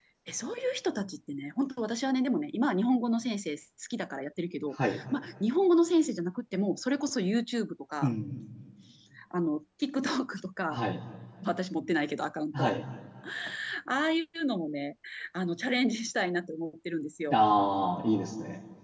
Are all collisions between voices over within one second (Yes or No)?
Yes